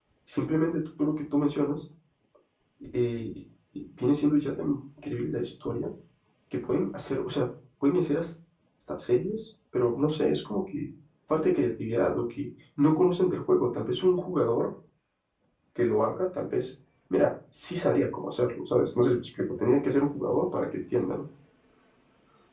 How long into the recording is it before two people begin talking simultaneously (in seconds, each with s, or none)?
none